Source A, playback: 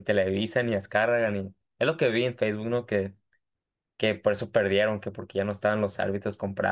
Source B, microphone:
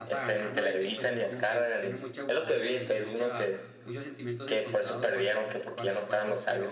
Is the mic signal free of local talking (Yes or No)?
No